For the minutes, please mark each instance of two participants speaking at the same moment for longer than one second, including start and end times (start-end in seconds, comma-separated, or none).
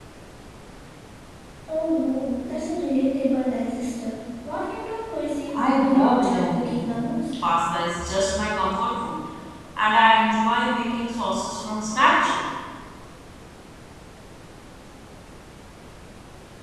5.5-6.9